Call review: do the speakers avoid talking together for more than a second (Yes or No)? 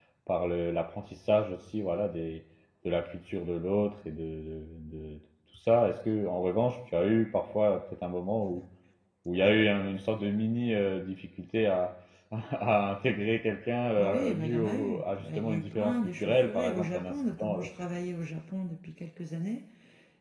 No